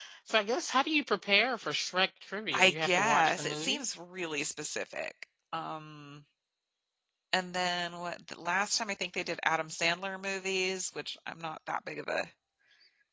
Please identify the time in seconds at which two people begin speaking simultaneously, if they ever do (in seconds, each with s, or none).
2.5 s